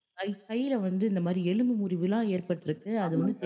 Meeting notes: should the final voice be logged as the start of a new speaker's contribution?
No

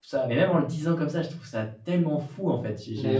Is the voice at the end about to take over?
No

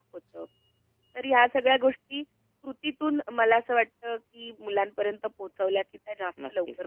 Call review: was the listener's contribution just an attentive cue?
No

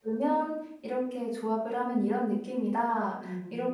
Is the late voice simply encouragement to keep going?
Yes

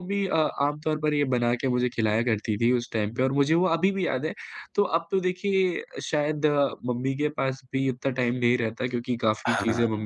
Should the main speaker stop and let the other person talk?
No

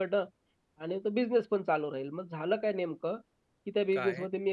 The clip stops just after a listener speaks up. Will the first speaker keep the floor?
Yes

